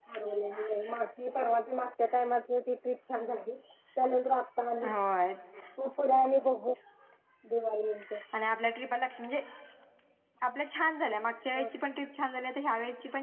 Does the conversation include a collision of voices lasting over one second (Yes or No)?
No